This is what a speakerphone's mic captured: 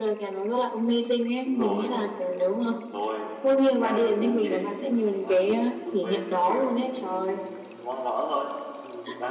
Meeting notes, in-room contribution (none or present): present